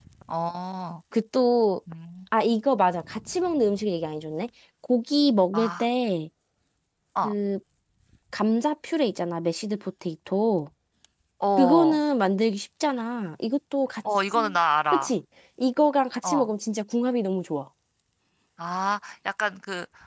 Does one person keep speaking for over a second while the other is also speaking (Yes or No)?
No